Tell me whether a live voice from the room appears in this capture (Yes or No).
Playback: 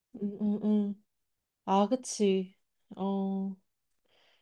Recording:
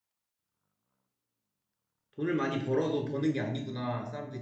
Yes